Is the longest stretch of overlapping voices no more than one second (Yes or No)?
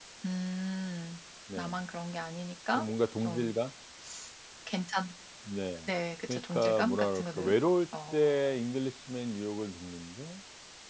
No